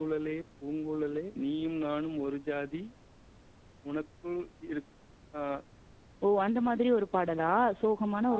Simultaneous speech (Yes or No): No